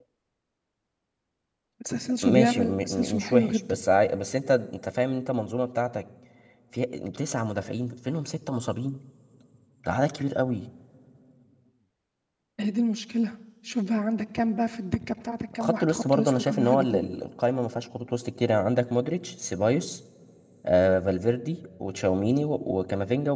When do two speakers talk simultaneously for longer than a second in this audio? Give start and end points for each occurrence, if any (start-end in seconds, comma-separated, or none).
2.2-3.8, 15.6-17.0